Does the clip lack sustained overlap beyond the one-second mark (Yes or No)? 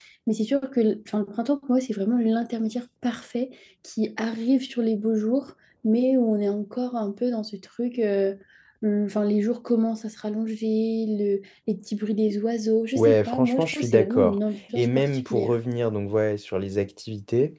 No